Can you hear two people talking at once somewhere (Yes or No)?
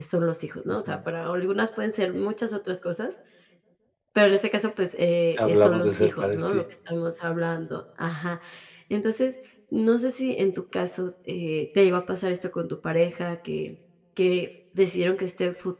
Yes